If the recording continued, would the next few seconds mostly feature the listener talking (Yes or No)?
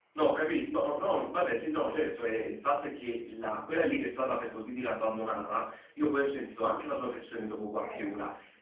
No